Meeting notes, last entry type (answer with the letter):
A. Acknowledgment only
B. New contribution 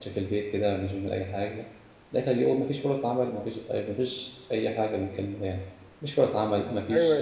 A